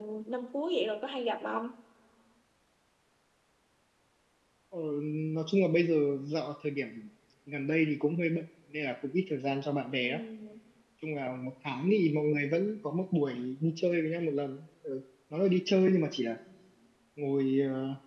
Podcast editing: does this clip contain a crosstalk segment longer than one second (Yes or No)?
No